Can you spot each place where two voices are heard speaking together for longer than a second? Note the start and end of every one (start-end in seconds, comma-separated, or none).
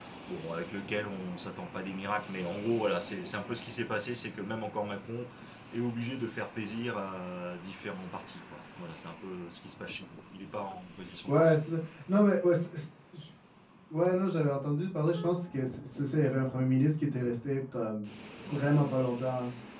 none